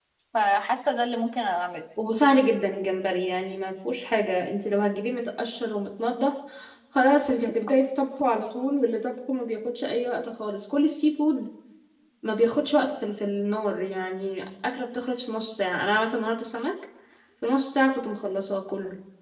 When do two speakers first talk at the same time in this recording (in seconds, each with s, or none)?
none